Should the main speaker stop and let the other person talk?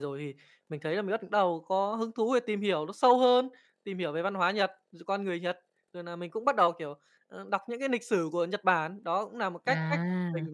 No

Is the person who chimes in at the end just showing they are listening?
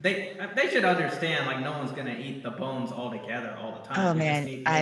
No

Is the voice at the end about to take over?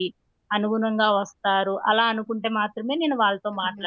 Yes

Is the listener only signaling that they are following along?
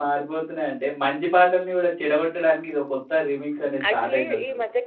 No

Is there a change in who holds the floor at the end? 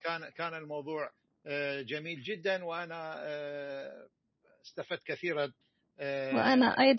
Yes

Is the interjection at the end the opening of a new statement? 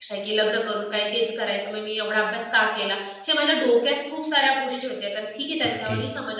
Yes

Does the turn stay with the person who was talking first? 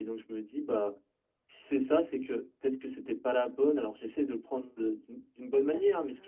Yes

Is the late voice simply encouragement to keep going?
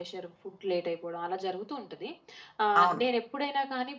Yes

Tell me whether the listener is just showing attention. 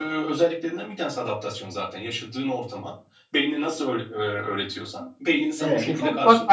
No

